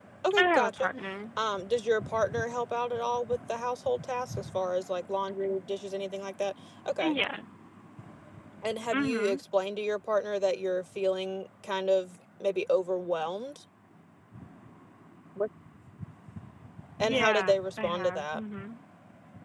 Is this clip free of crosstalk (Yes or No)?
No